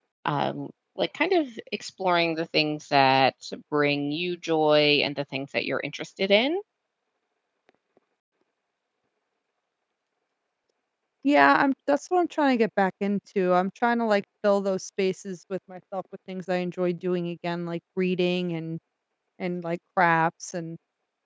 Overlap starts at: none

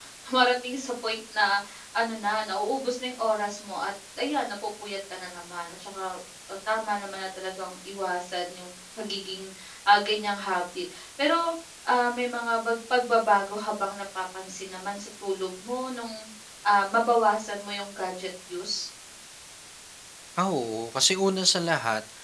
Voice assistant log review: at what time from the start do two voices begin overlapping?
none

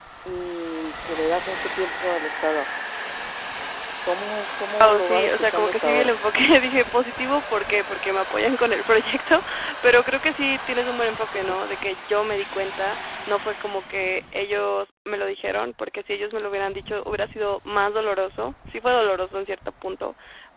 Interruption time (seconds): 4.8 s

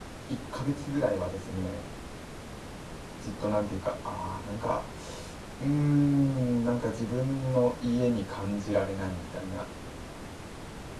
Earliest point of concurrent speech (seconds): none

